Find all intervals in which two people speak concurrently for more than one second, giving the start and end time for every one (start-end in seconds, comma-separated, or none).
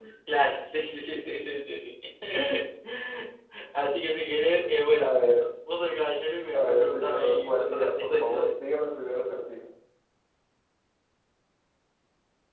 6.5-8.6